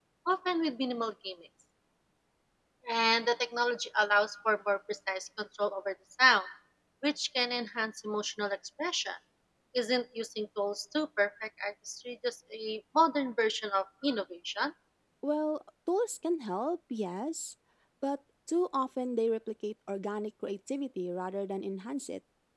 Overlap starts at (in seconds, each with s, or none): none